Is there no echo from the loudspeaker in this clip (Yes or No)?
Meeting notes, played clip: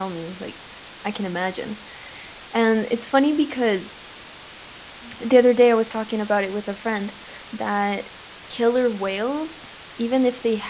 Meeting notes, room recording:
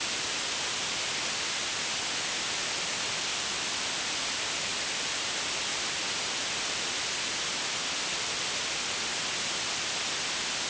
Yes